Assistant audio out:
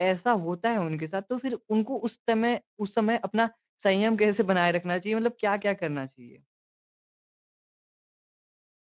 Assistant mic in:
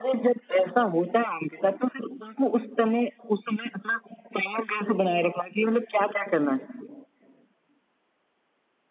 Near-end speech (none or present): none